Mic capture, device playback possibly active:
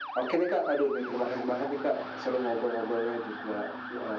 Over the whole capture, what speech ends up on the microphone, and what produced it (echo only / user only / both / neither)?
echo only